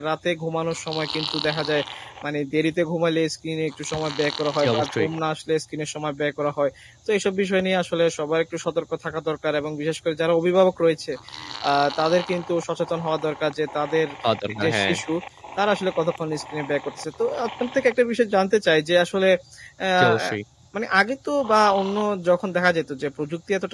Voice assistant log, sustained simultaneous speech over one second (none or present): none